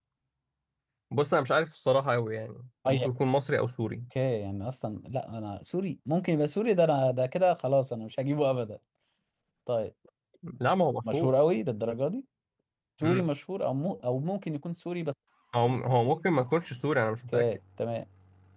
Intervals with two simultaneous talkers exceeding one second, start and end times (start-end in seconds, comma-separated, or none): none